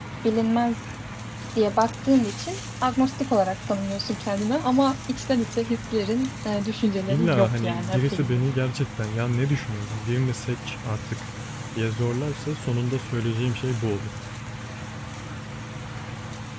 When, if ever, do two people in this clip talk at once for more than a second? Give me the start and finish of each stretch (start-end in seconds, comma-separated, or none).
7.1-8.4